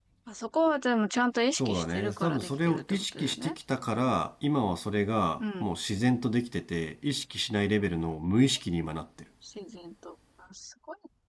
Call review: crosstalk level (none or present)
present